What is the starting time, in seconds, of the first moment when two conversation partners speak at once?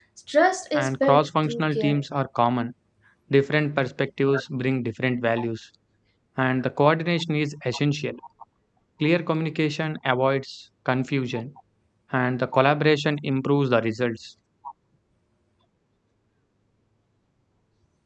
1 s

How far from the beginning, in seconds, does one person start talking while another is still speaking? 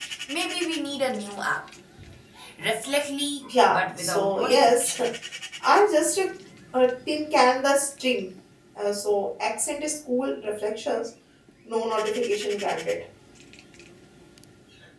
4 s

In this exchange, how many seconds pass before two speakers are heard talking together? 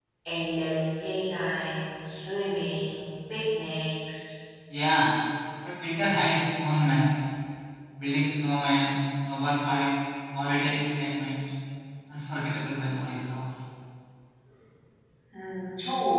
none

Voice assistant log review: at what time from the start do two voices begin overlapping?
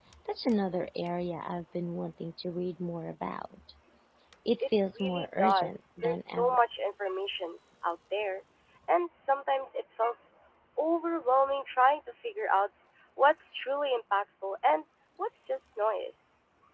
5 s

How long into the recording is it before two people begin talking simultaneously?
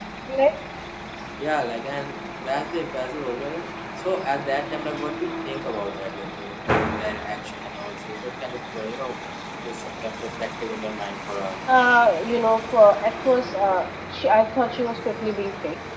none

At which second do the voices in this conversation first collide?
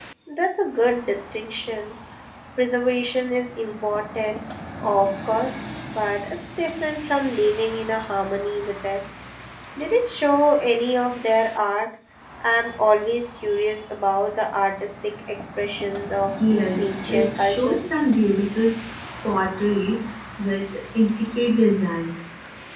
16 s

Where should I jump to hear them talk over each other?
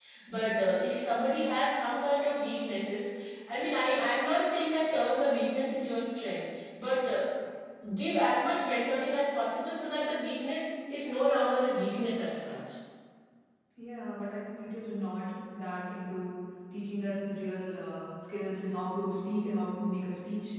none

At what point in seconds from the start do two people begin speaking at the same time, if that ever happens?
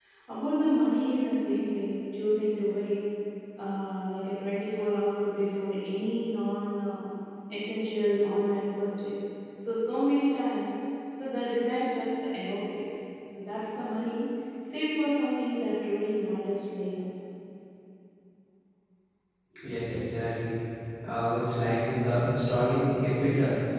none

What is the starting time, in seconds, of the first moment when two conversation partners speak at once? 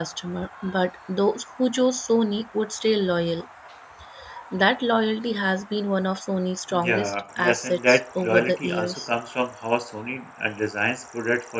7 s

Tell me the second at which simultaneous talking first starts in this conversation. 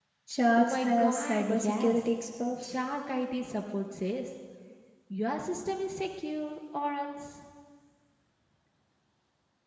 1 s

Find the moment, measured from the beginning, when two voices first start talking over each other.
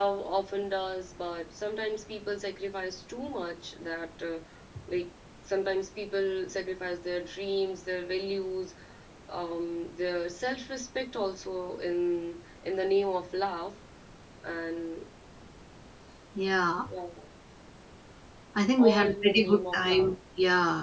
19 s

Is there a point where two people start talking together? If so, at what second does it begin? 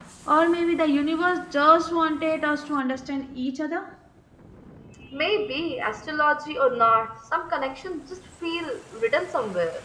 none

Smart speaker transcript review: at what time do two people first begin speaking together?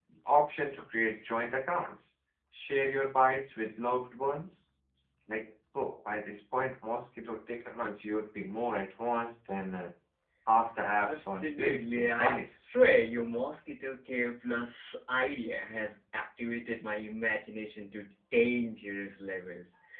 11 s

